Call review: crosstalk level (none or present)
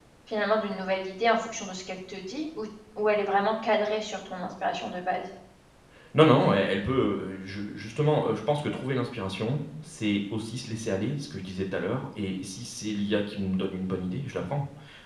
none